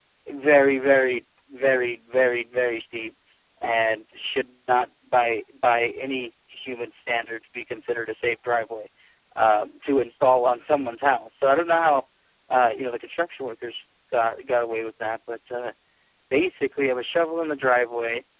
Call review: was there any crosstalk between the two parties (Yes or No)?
No